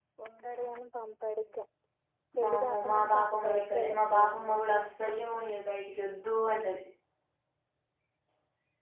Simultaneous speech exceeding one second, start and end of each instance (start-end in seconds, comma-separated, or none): 2.4-4.6